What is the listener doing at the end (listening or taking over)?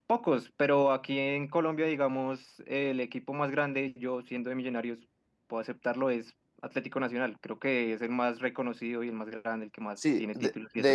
taking over